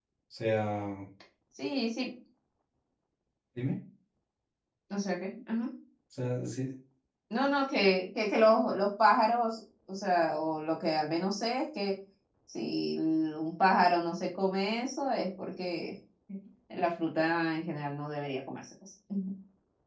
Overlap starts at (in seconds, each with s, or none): none